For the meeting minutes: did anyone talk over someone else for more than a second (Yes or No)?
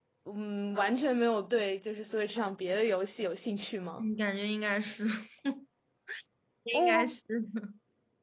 No